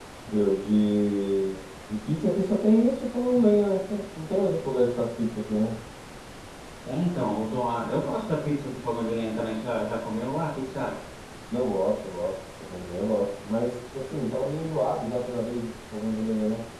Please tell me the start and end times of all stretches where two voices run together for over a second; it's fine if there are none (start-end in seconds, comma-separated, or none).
none